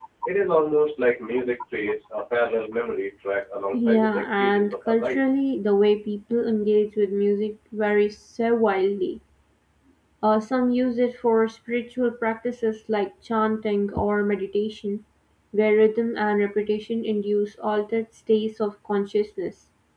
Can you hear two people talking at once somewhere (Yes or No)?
Yes